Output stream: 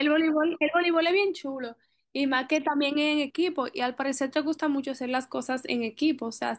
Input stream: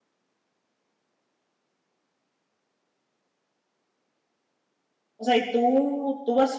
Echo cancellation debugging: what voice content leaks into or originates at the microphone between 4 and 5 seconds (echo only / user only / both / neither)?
neither